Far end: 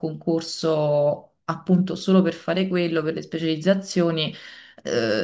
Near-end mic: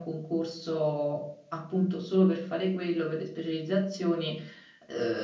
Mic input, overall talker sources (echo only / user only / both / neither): echo only